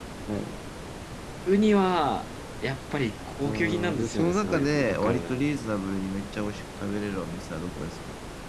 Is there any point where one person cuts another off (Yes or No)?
Yes